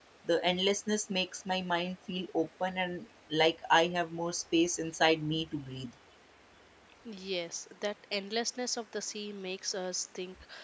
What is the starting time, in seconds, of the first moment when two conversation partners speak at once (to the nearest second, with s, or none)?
none